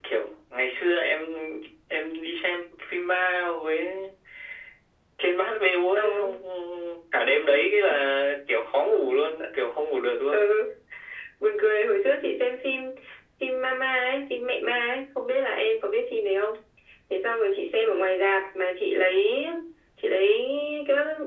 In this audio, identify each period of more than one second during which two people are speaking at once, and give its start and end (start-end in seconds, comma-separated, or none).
none